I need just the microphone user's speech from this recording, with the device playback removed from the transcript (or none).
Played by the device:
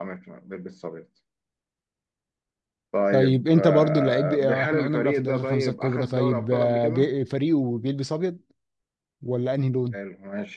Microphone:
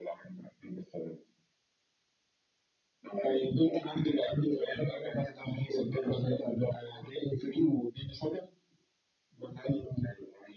none